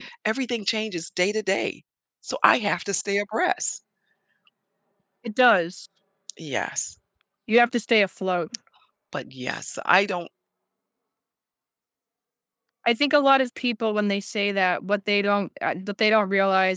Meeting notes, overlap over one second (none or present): none